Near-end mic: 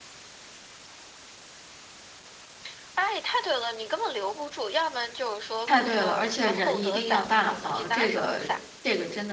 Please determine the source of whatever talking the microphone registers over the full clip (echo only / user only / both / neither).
both